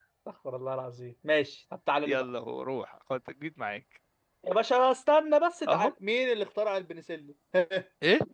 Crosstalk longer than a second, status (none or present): none